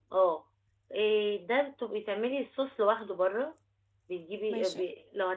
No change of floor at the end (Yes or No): Yes